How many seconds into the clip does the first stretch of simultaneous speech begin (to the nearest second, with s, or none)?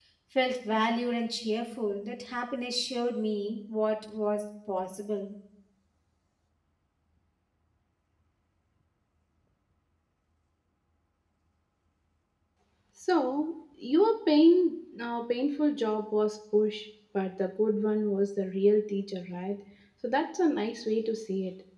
none